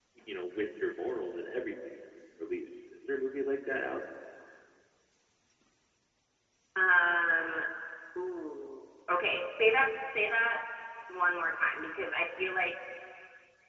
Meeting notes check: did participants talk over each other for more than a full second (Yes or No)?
No